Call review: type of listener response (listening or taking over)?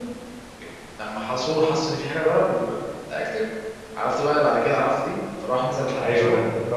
taking over